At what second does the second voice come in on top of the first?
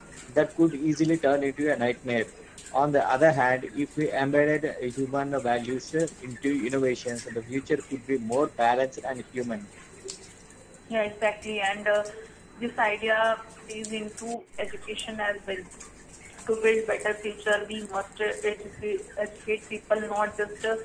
none

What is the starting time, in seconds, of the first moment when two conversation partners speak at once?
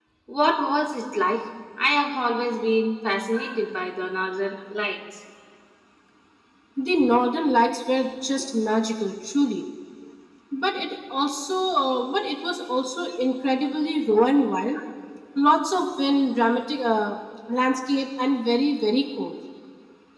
none

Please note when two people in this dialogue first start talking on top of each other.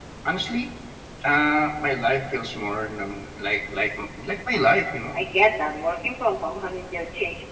none

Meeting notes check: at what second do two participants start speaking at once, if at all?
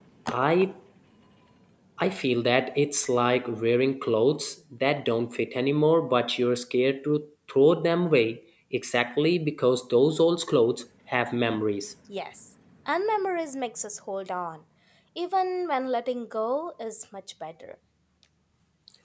none

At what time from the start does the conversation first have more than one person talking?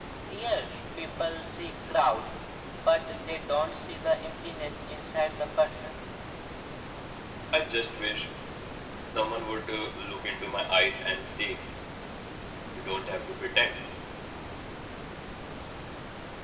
none

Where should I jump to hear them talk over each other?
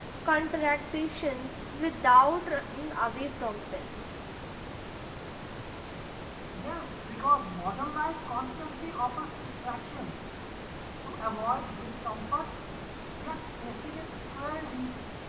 none

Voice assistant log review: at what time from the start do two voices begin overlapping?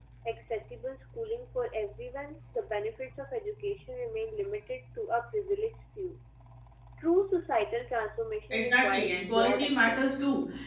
9 s

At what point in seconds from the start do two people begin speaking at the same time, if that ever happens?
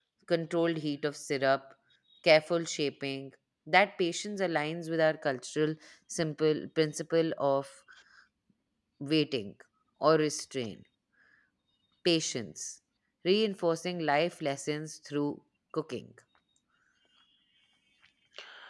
none

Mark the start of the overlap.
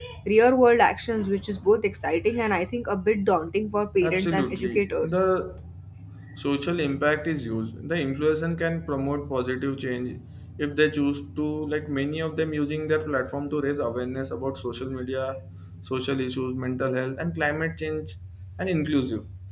4 s

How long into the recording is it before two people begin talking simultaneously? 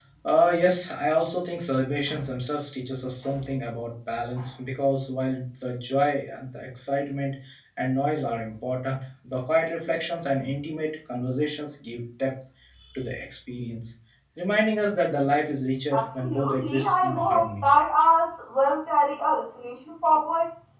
16 s

